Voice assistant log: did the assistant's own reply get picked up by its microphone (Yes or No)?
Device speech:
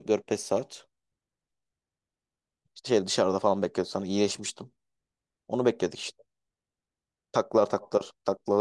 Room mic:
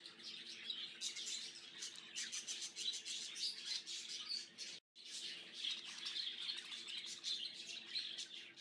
No